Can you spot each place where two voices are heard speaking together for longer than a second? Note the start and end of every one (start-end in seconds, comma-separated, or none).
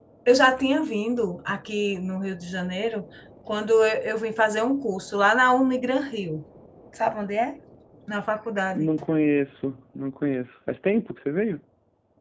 none